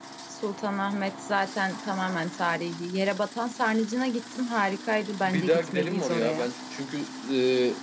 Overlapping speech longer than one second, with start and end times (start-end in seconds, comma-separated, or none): 5.2-6.5